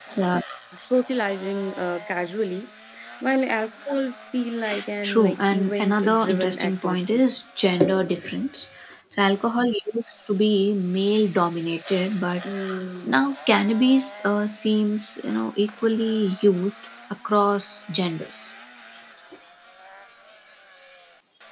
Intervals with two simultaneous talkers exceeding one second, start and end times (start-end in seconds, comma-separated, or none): 5.0-7.2